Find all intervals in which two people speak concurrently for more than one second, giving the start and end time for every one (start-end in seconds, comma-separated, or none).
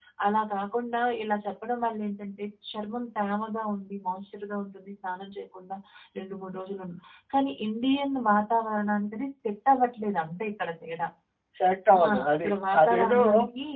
12.0-13.2